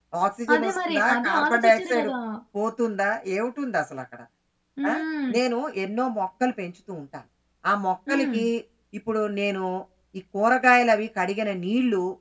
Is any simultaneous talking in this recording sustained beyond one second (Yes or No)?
Yes